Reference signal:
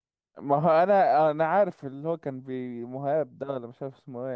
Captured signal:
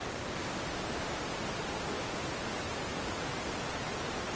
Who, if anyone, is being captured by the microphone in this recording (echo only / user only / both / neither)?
neither